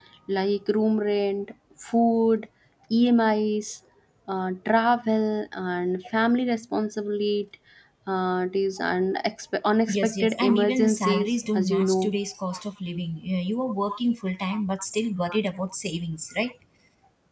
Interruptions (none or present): present